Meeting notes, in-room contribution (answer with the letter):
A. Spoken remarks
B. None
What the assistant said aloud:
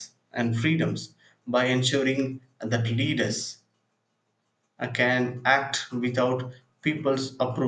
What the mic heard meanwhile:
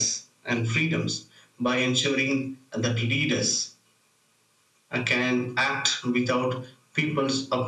B